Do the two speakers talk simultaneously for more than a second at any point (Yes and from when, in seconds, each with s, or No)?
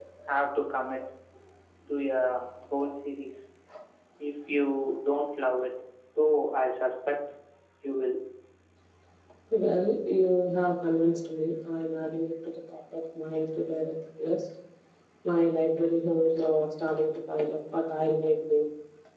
No